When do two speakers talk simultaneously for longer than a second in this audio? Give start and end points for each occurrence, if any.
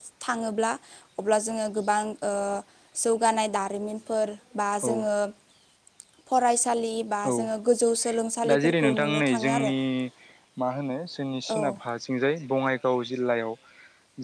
8.5-9.7

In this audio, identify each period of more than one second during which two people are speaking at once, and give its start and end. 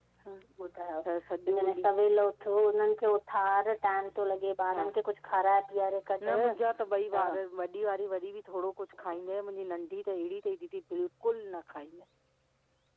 none

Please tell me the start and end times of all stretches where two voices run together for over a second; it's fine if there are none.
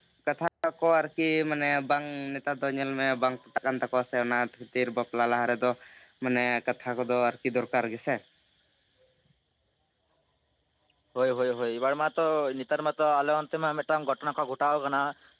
none

